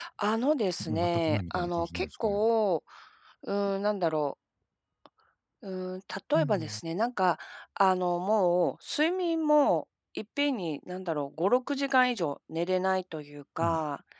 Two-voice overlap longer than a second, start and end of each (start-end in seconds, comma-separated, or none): 0.8-2.4